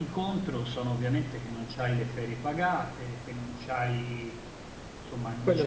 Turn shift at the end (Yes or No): No